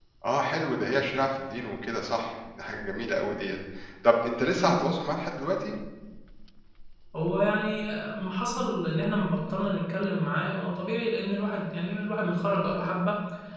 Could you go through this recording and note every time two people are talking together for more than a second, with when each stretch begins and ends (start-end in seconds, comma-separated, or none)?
none